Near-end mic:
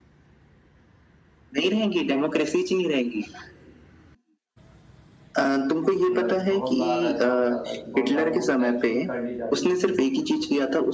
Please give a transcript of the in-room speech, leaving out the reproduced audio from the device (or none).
मतलब बहुत बार ऐसा होता था कि बहुत बार वोट कैप्चरिंग कर ली जाती थी